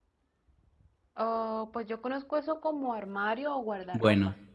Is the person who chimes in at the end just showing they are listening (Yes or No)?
No